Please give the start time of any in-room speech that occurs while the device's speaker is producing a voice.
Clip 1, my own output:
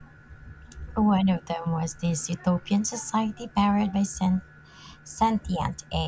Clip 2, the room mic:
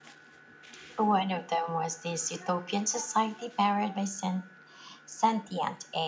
none

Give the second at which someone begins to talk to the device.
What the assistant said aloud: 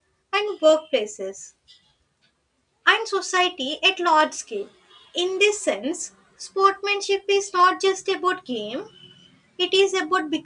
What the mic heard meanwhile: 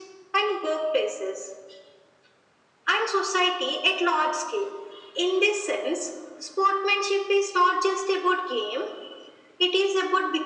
none

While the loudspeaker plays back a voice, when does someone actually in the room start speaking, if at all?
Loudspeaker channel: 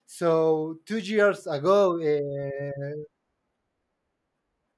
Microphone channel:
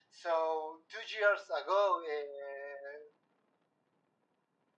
none

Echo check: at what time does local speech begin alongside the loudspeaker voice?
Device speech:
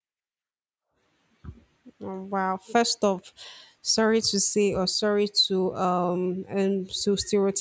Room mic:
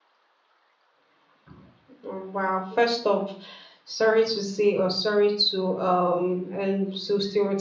none

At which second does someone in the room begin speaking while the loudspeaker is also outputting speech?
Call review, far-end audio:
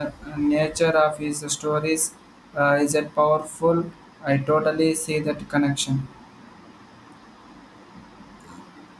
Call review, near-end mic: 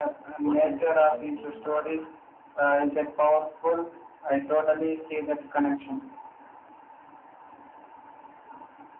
0 s

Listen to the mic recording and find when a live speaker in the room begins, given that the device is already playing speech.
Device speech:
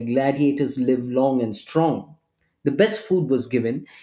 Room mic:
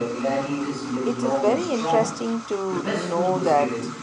1 s

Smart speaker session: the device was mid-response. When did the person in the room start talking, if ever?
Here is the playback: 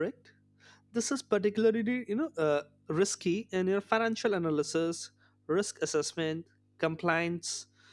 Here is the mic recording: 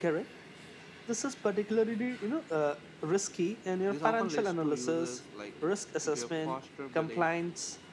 4 s

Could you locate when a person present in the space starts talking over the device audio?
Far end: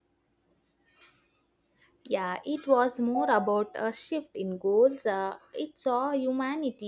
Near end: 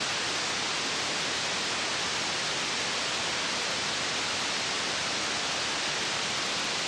none

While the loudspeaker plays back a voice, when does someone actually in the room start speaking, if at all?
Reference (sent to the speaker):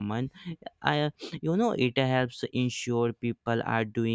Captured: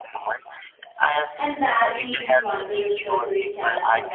1 s

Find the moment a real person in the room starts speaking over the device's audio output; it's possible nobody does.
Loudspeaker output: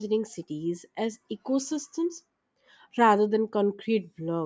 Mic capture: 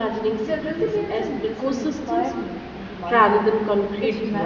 0 s

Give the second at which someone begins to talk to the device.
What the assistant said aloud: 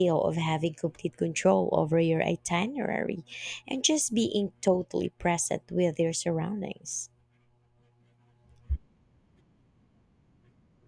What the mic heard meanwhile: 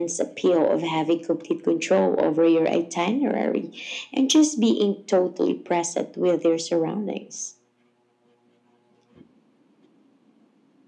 none

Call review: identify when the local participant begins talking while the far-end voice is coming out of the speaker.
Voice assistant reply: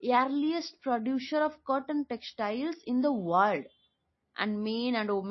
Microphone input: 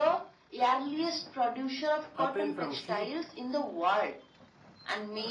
2 s

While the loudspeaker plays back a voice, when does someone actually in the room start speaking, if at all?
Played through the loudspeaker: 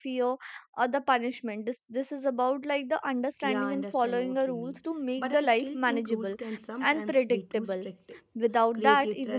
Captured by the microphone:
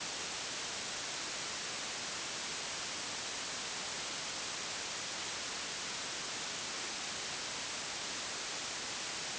none

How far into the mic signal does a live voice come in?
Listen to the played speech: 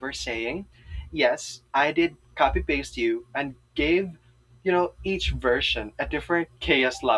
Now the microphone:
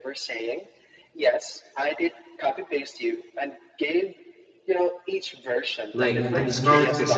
6 s

